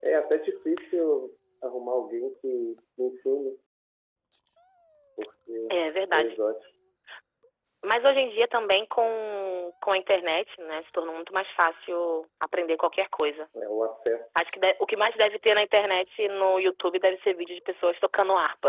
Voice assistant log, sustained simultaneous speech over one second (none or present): none